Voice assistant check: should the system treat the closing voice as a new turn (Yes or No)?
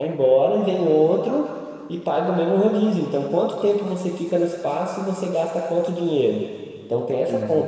No